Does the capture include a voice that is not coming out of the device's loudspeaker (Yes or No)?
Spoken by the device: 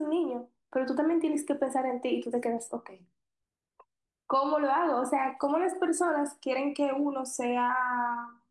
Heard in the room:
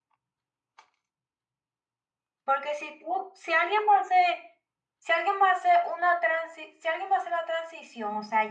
Yes